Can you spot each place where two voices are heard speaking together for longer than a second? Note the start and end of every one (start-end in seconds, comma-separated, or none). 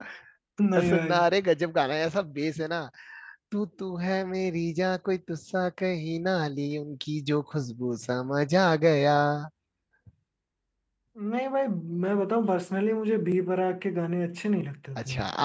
none